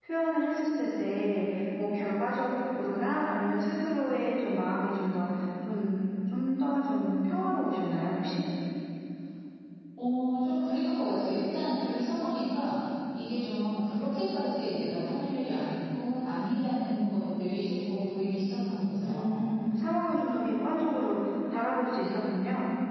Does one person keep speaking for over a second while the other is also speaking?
No

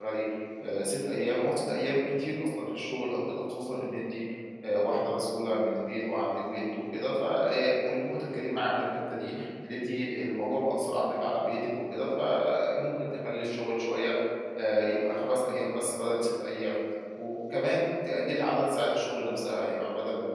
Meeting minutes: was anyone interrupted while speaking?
No

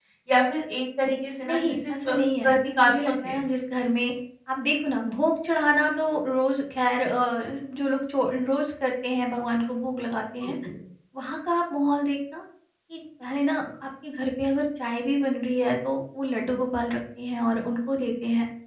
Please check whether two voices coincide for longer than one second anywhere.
Yes, from 1.4 s

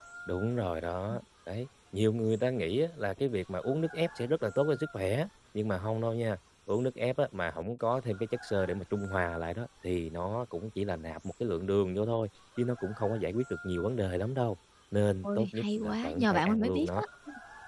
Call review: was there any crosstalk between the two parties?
Yes, from 15.2 s

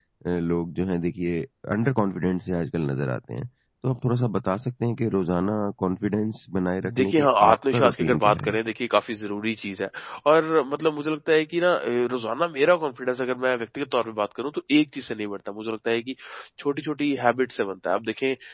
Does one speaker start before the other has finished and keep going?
Yes, from 6.8 s

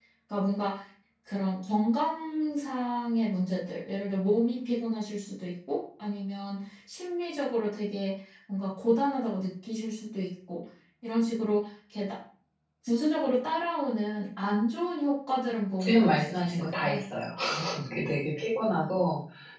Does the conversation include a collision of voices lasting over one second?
Yes, from 15.8 s

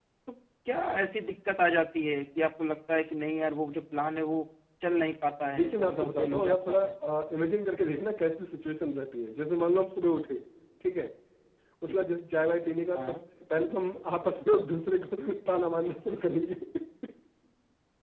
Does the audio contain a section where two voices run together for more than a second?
Yes, from 5.4 s

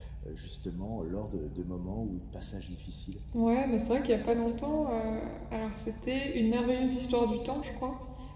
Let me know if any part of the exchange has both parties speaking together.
No

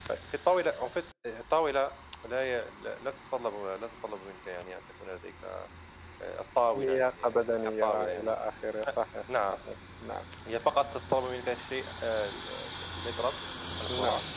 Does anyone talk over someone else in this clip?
Yes, from 6.7 s

